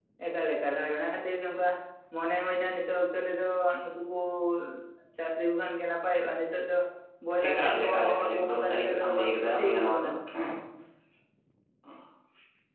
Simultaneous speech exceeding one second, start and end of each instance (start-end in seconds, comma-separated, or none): 7.5-10.1